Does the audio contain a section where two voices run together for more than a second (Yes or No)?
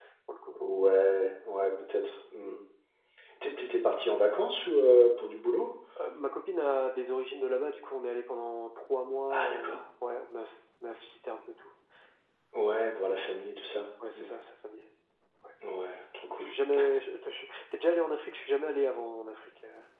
No